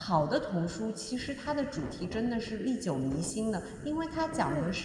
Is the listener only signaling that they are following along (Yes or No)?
Yes